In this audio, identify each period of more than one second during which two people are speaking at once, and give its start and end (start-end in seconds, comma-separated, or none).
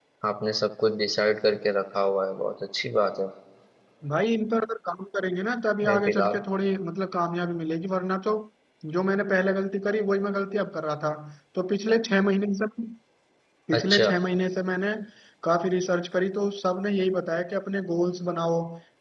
none